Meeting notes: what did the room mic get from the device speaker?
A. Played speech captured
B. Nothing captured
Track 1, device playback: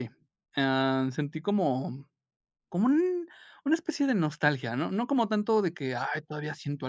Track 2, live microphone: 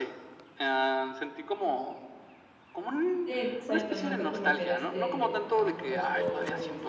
A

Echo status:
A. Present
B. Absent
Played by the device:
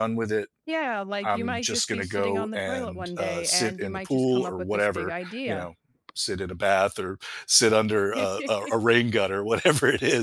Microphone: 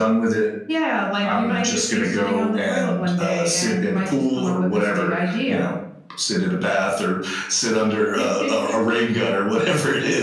A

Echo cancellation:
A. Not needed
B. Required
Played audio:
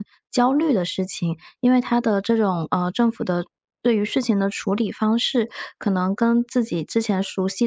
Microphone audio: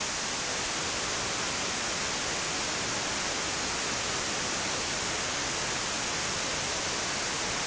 A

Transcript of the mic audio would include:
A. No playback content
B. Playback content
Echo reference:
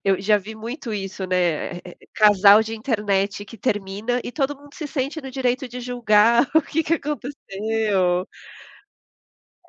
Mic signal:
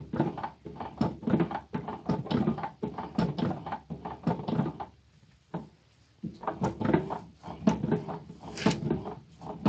A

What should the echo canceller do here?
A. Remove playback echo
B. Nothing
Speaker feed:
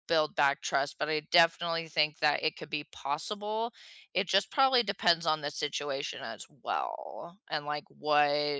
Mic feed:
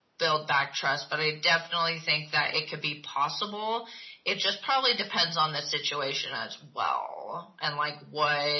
A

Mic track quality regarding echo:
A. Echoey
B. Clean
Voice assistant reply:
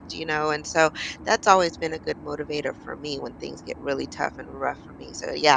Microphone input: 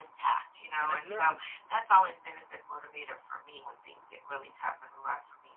A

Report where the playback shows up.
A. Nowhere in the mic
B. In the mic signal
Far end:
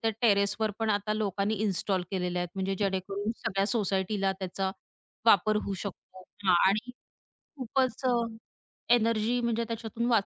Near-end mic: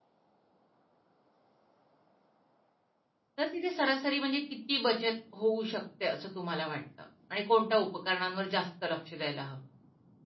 A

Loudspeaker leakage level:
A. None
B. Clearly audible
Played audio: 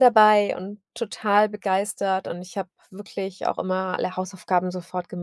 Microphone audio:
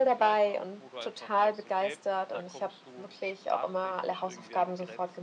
B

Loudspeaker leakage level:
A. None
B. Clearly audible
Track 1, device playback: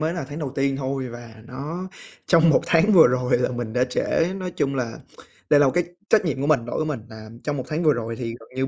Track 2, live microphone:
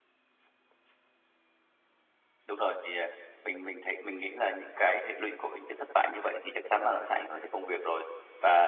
A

